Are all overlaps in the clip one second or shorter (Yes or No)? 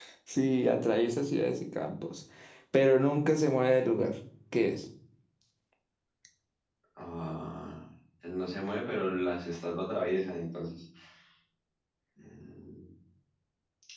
Yes